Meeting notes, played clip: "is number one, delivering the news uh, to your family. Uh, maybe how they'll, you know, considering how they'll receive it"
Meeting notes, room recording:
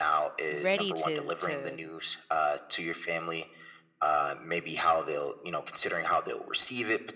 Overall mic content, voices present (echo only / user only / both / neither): both